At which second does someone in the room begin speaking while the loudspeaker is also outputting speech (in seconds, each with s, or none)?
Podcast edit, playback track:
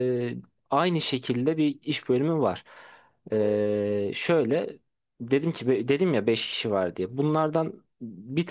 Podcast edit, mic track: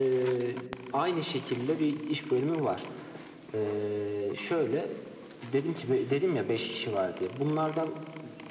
none